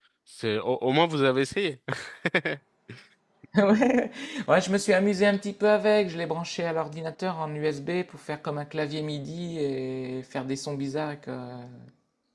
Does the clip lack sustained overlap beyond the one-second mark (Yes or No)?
Yes